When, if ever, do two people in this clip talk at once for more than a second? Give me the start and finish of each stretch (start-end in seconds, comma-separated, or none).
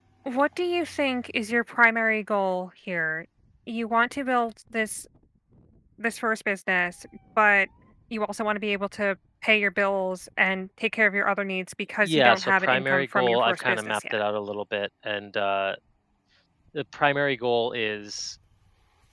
12.0-14.2